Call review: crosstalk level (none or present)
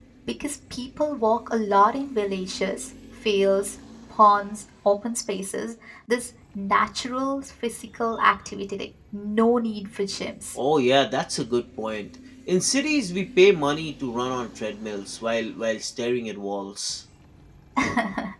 none